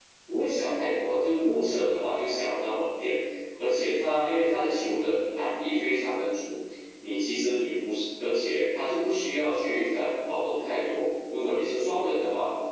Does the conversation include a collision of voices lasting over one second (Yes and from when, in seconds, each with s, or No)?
No